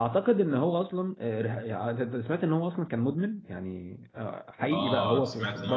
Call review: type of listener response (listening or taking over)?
taking over